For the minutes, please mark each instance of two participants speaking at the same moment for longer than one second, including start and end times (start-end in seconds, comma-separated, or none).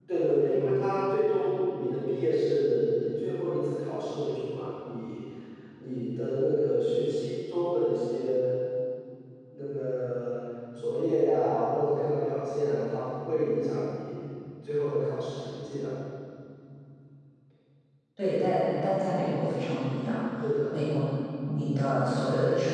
none